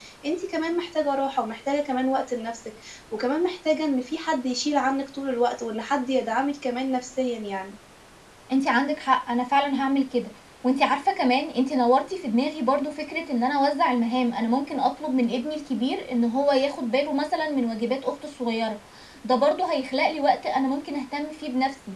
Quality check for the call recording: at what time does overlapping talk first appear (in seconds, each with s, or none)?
none